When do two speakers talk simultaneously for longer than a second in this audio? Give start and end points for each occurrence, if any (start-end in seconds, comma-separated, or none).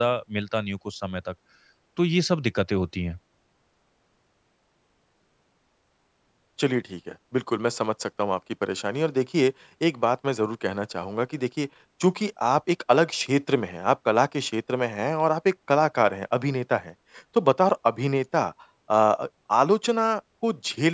none